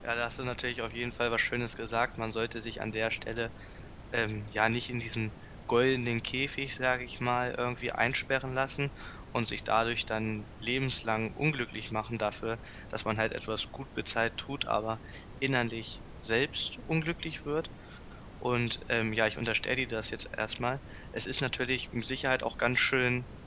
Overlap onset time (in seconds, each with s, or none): none